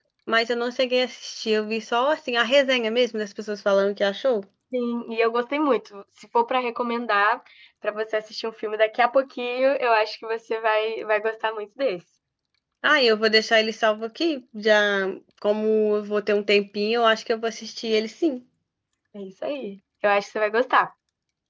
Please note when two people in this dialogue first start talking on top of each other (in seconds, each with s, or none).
none